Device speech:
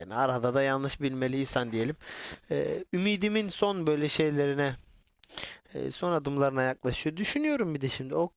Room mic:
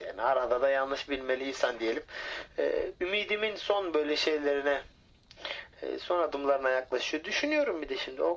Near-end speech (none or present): none